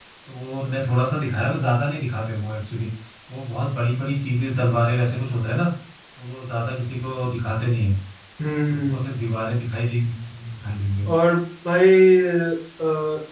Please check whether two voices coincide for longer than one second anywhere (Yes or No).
No